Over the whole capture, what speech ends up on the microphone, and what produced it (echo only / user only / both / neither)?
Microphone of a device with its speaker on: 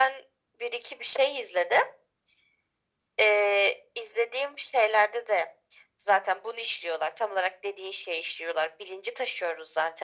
echo only